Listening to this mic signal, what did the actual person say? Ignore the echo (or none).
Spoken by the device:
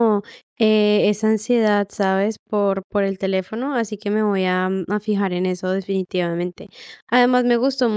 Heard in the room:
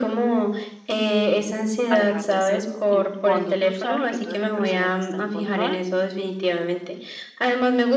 a dejar de hacerlo. Y cuando tú sabes que tú eres la persona que está en control,